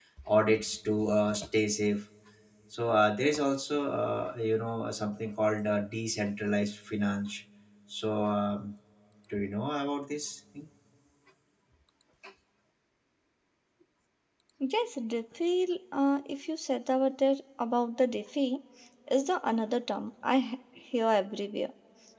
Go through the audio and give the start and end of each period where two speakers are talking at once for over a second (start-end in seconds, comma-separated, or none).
none